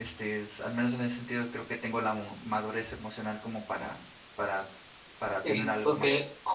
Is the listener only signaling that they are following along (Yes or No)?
No